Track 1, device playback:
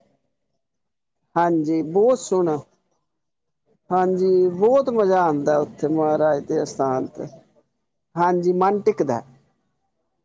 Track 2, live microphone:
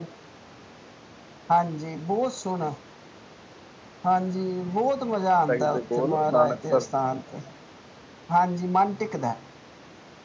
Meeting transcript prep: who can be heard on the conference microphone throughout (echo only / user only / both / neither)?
both